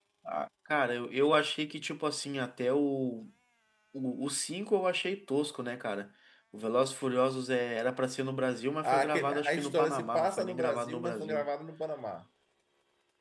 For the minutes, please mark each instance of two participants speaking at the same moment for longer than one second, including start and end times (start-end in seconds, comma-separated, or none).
8.8-11.4